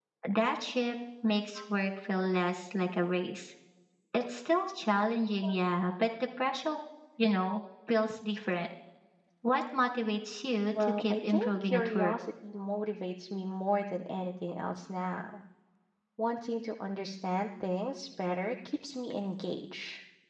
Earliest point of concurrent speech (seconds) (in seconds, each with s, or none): 10.7 s